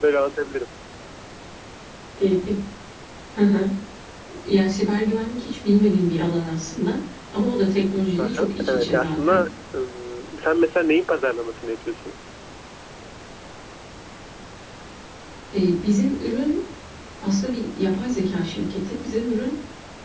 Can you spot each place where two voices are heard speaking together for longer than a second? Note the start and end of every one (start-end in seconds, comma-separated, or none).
8.2-9.4